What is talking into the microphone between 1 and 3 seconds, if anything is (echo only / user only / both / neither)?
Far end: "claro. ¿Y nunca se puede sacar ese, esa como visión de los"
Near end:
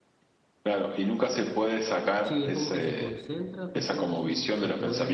both